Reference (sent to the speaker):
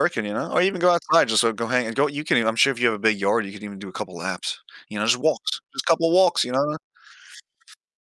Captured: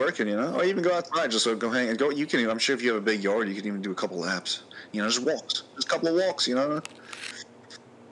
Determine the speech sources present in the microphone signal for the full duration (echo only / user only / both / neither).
echo only